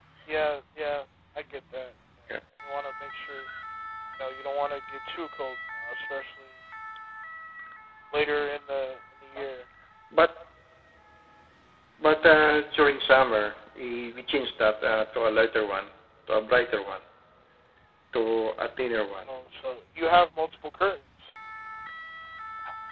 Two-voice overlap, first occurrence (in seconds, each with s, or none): none